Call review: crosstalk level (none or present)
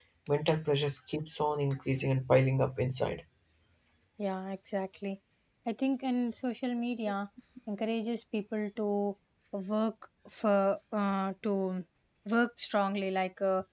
none